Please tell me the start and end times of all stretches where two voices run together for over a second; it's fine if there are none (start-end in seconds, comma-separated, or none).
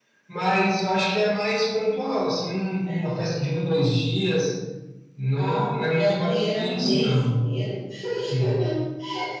5.3-7.3